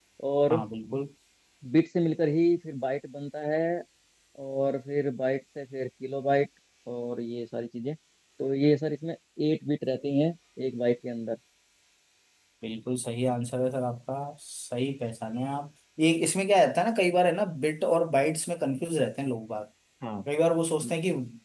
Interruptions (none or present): none